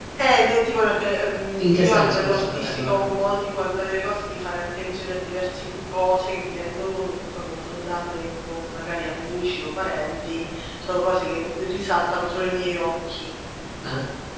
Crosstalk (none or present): present